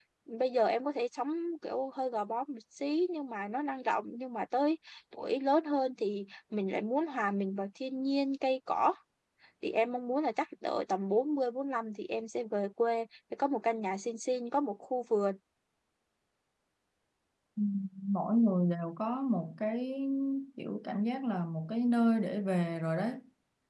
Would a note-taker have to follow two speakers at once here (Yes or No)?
No